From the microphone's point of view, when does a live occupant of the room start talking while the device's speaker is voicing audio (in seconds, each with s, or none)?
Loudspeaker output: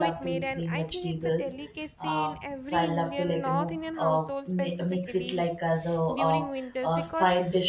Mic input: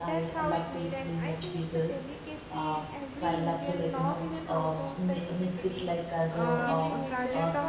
6.3 s